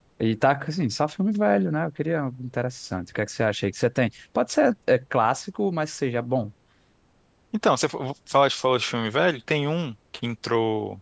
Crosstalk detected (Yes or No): No